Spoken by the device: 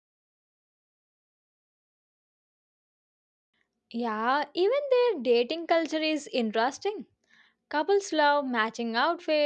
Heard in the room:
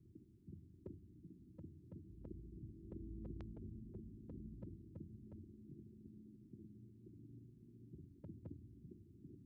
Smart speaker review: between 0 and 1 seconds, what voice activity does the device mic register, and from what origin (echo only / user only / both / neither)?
neither